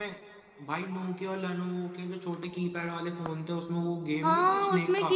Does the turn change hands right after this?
Yes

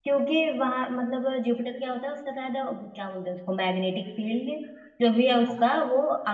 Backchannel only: Yes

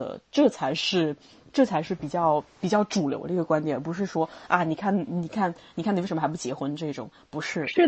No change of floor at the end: No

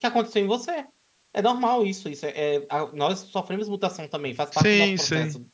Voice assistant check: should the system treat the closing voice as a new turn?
Yes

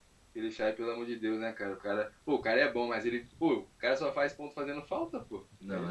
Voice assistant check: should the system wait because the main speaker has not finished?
No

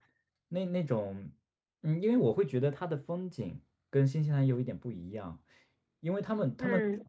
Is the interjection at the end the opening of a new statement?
No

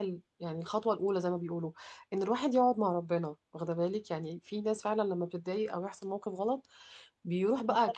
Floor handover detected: No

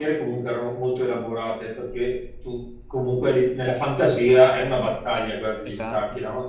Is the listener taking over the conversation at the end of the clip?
No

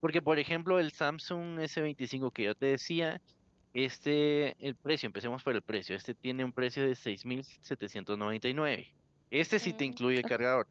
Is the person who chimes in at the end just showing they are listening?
Yes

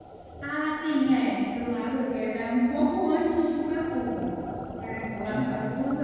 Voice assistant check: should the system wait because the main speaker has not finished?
Yes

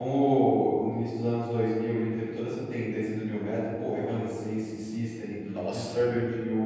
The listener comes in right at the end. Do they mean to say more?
No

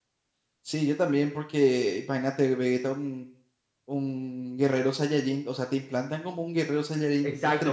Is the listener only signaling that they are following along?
No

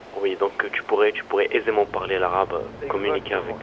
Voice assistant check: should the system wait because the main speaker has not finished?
No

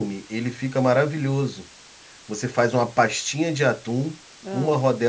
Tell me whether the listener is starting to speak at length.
No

